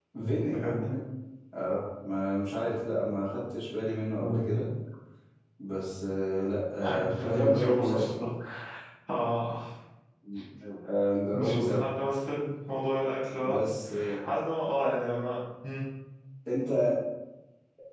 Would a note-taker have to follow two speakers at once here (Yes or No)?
Yes